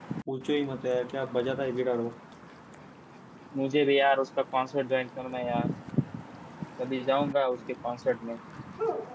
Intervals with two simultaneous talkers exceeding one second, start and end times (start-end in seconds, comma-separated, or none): none